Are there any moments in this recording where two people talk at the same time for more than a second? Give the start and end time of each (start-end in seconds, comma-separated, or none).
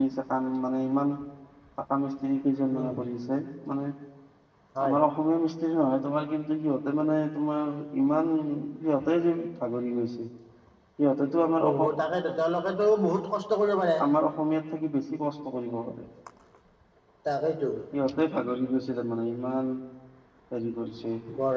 none